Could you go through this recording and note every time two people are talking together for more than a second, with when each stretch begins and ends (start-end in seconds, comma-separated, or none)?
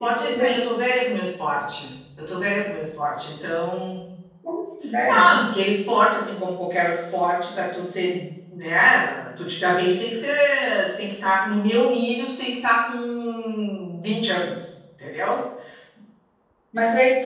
none